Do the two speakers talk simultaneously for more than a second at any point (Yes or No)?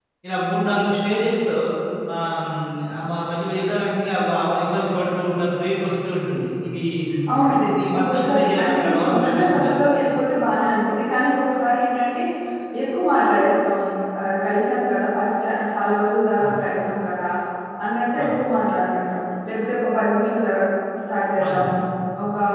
Yes